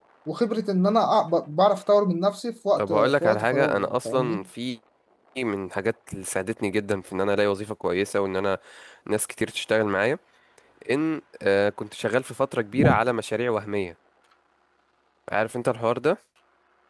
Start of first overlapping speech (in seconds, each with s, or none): 2.8 s